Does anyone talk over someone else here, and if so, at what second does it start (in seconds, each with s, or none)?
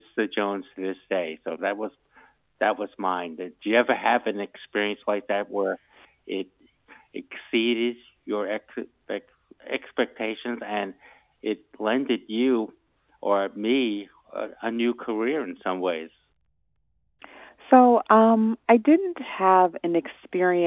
none